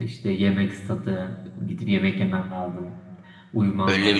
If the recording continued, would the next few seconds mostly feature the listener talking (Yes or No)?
Yes